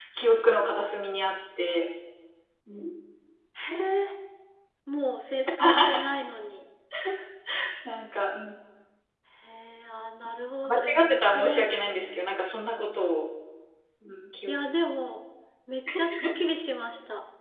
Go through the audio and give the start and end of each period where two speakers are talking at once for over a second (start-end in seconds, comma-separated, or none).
10.6-12.2